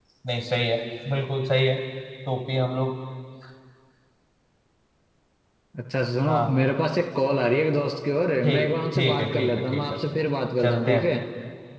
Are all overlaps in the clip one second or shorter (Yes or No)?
No